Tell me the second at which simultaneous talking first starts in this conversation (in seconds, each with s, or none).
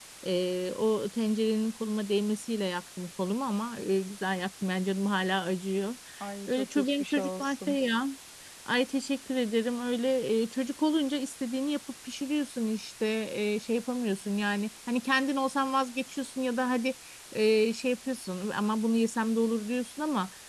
6.5 s